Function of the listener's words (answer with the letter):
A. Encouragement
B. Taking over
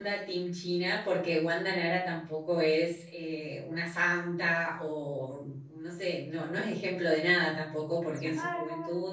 A